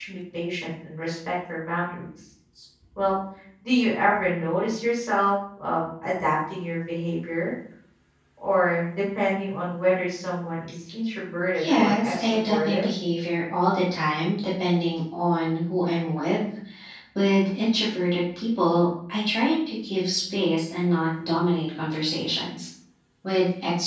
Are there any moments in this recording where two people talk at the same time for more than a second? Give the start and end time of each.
11.6-12.9

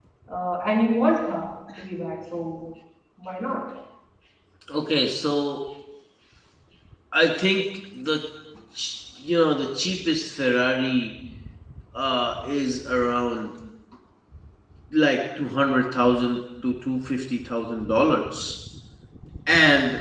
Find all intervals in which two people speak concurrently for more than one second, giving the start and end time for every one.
none

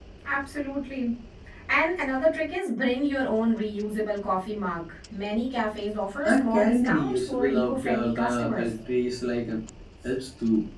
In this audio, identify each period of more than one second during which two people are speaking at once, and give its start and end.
6.2-8.7

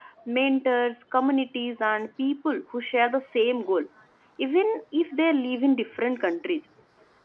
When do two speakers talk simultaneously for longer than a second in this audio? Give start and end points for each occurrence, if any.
none

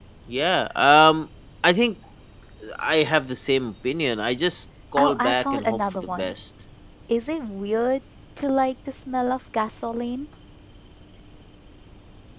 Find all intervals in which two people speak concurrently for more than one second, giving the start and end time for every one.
5.0-6.3

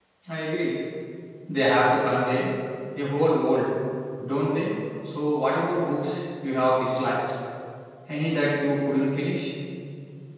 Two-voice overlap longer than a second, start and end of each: none

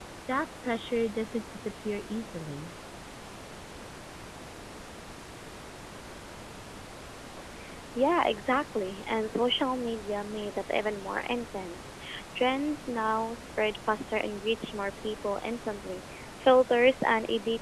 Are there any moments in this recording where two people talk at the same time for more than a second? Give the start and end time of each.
none

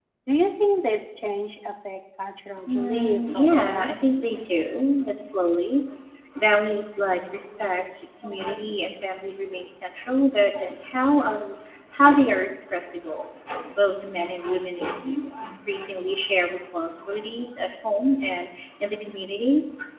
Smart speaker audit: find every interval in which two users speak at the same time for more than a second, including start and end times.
2.7-3.9

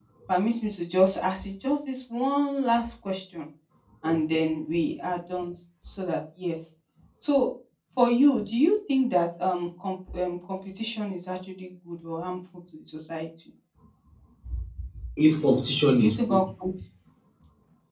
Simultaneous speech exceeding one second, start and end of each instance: none

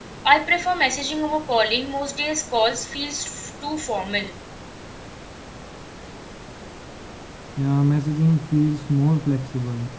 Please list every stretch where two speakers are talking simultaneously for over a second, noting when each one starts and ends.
none

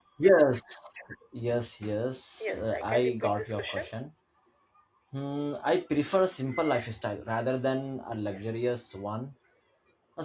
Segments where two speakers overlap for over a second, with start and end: 2.5-3.9

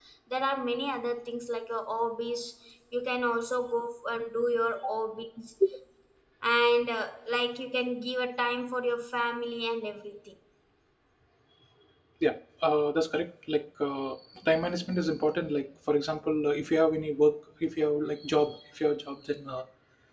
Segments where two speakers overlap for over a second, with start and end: none

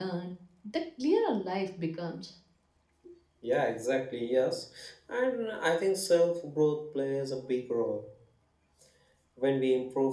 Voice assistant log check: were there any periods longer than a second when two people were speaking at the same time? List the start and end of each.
none

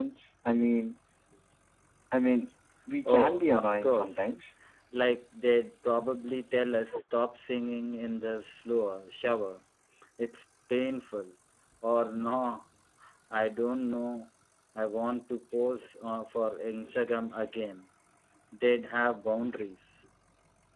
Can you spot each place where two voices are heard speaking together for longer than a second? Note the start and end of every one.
3.0-4.3

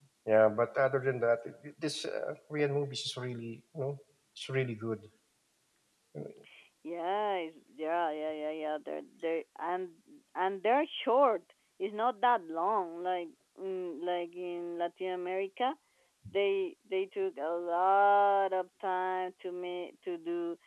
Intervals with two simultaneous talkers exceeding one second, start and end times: none

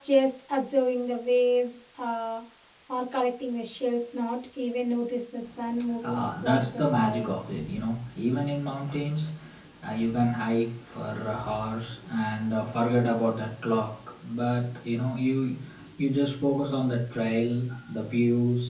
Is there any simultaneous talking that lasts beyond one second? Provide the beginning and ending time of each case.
6.0-7.3

